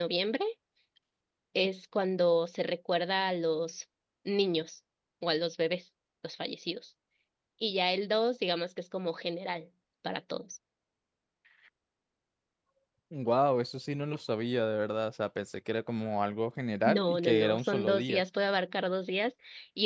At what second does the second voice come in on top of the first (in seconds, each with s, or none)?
16.8 s